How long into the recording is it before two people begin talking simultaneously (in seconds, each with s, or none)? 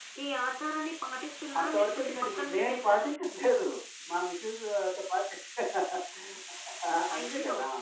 1.6 s